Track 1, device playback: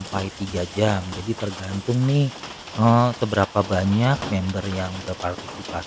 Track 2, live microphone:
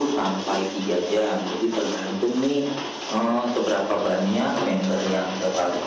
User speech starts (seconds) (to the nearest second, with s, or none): none